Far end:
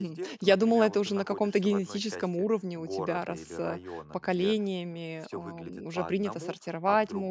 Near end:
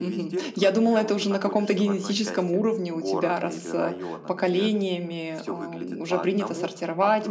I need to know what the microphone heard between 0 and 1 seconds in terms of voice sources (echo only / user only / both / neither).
echo only